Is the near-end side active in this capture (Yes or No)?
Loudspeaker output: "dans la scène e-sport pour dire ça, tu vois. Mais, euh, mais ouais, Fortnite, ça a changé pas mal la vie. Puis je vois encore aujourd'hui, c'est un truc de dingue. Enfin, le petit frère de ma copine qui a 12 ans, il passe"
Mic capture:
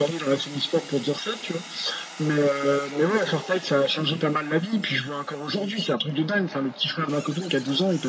No